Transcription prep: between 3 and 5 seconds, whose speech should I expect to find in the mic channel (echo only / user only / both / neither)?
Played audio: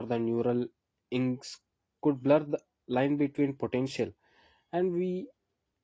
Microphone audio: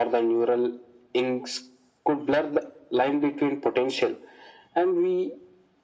echo only